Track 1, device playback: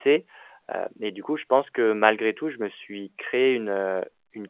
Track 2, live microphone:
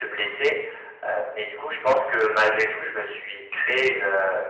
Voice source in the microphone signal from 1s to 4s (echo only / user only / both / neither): echo only